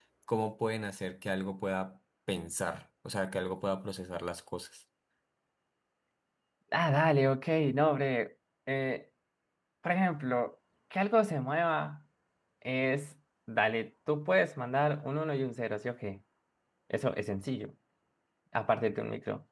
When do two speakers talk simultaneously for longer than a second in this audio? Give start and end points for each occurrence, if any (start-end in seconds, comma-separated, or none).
none